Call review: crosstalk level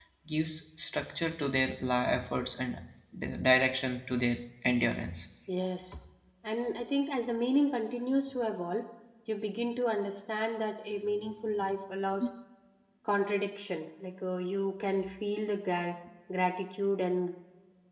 none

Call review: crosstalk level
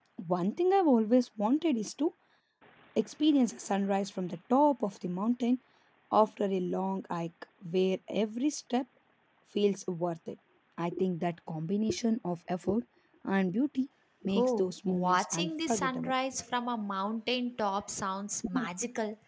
present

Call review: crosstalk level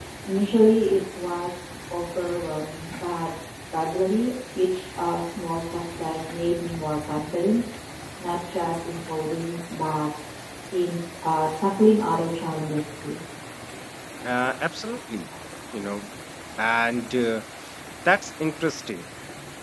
none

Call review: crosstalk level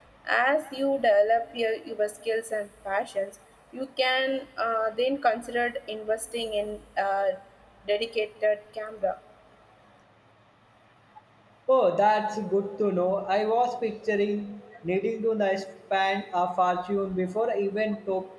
none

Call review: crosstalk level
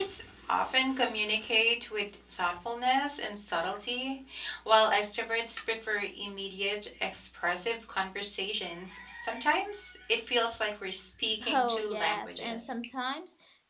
present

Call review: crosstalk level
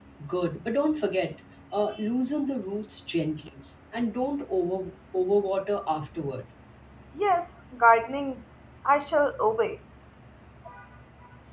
none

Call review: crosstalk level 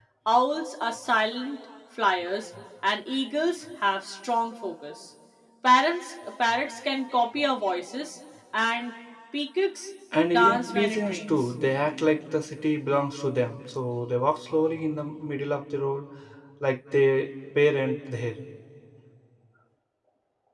present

